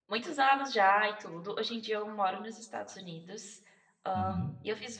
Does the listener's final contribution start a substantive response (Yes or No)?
No